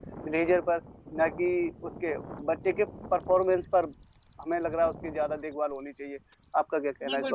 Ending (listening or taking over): taking over